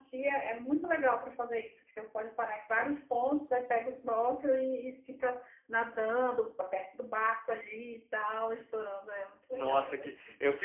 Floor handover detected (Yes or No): Yes